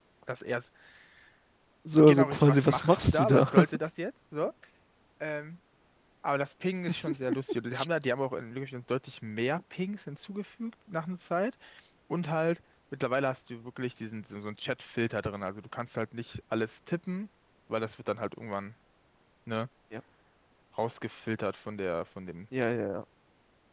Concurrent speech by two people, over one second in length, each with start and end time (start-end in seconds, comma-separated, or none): 2.0-3.5